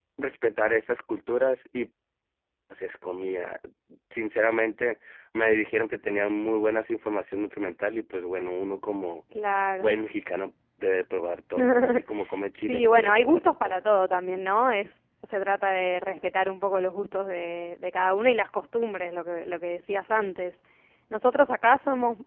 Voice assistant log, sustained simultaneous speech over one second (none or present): present